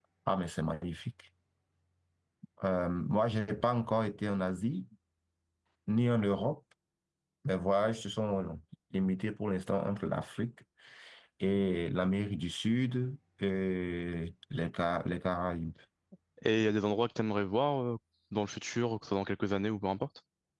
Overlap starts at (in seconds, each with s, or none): none